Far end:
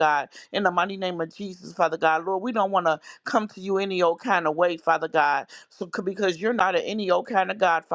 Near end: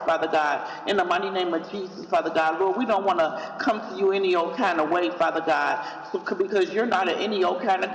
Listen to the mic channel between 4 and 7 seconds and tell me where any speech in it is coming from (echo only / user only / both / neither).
echo only